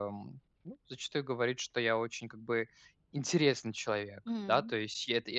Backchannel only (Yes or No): Yes